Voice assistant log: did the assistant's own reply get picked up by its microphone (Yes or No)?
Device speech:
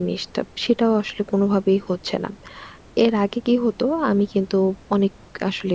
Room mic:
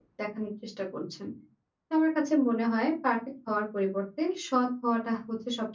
No